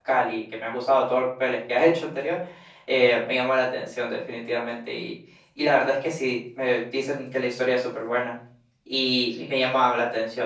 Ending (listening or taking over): listening